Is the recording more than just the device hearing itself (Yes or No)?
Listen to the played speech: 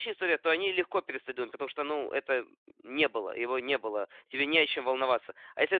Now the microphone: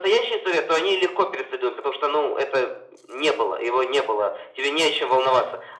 No